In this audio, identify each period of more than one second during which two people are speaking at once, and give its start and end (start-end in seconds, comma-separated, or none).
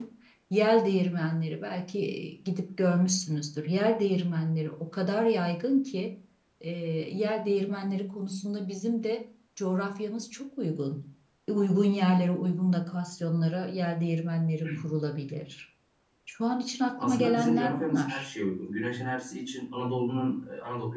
17.0-18.2